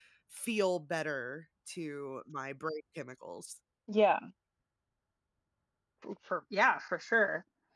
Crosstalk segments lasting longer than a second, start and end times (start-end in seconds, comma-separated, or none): none